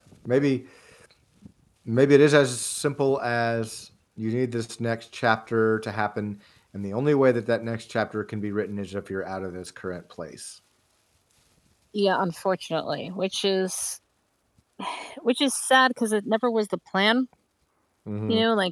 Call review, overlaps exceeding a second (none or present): none